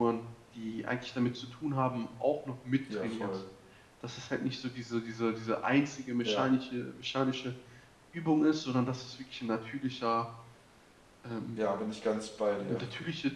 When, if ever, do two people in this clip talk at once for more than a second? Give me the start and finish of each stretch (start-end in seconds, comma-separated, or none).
none